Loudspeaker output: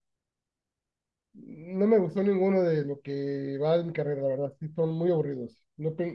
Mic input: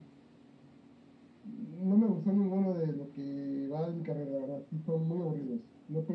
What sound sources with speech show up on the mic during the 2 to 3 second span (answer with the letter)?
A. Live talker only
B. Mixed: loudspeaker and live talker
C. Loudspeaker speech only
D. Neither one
C